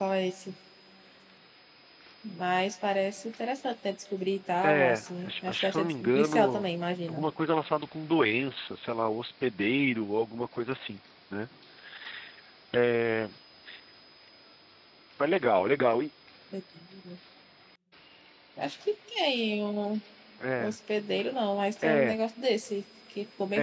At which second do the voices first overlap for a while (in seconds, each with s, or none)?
4.6 s